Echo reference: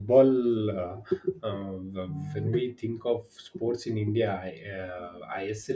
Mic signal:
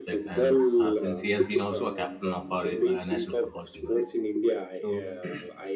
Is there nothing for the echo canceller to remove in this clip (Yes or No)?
No